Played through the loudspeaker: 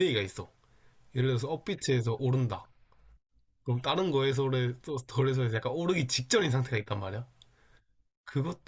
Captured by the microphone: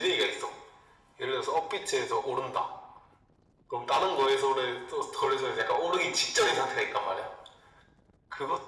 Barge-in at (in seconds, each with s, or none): none